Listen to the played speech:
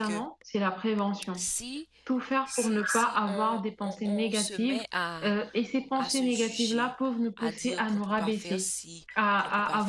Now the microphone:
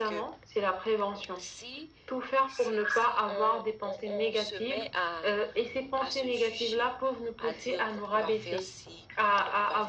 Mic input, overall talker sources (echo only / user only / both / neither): echo only